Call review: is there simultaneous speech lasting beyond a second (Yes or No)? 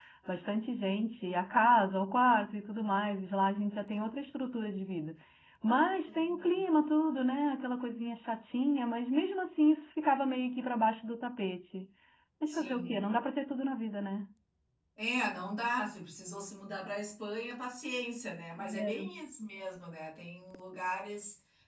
No